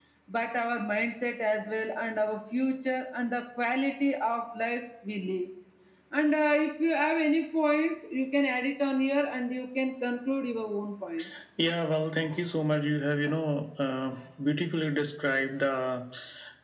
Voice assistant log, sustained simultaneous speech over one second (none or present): none